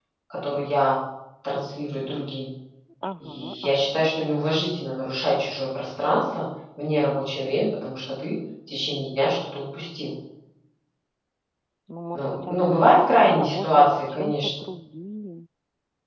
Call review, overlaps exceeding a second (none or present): present